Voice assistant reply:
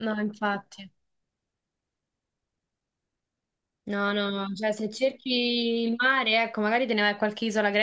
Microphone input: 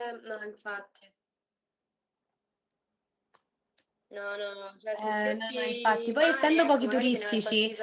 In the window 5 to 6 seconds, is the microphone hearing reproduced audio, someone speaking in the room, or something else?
both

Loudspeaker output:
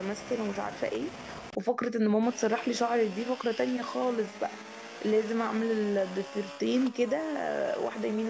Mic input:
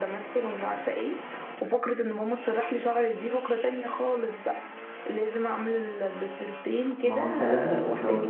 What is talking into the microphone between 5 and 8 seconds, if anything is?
both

